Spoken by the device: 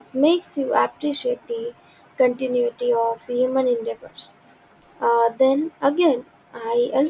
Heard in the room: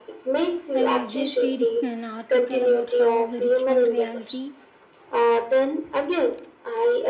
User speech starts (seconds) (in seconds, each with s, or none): 0.7 s